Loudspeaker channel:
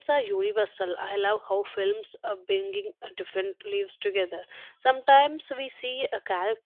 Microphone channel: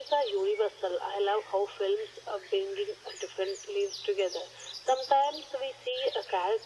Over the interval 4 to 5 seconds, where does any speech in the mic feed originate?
echo only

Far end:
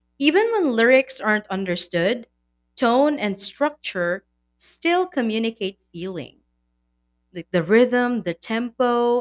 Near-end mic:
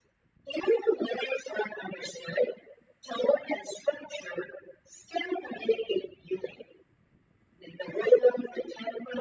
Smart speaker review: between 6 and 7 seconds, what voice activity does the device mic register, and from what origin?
echo only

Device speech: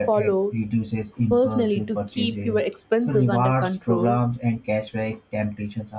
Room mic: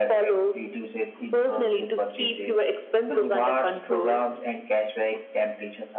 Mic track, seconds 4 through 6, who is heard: echo only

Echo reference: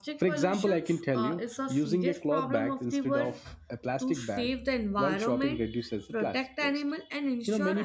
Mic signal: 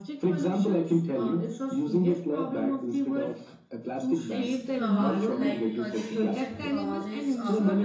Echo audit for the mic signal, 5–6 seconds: both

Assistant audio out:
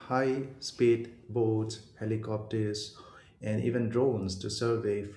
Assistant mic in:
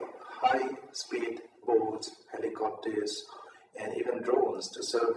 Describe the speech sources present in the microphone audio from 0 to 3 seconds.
echo only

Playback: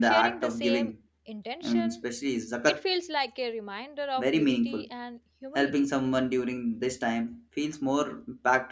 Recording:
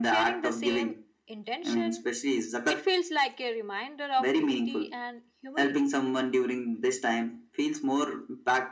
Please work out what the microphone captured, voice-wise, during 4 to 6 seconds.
echo only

